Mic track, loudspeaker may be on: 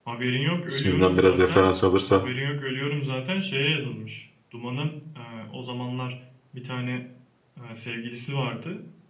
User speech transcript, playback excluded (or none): İsminden biraz referans alırsan.